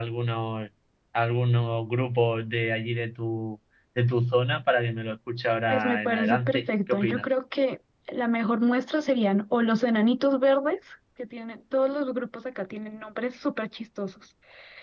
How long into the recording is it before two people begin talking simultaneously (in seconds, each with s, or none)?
5.7 s